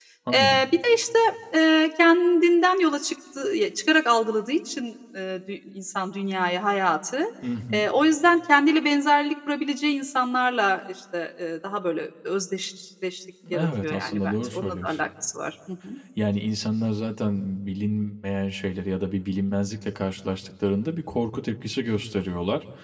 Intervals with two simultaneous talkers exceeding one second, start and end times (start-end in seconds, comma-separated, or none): 13.5-14.9